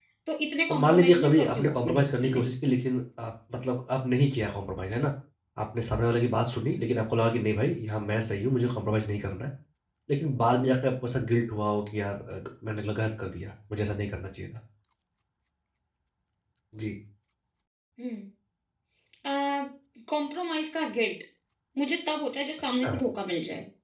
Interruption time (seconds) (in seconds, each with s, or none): 0.7 s